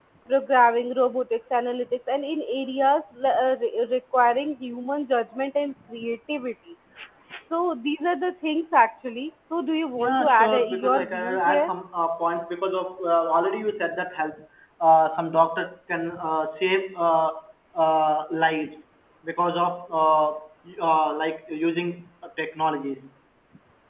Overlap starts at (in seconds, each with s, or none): 9.9 s